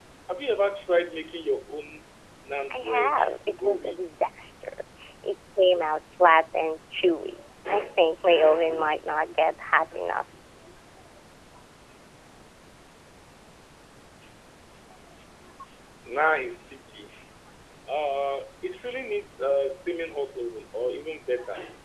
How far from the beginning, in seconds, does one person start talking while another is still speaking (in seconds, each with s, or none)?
2.7 s